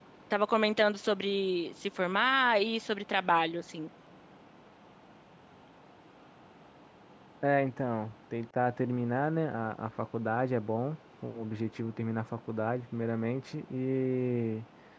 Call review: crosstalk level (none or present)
none